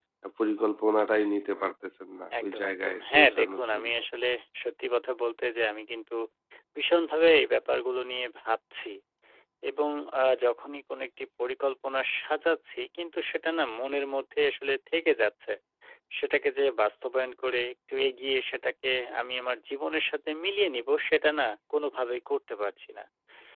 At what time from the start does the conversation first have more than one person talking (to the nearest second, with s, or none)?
2 s